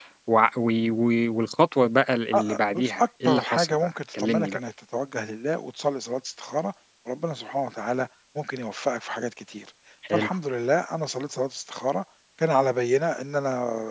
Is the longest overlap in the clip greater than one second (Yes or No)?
Yes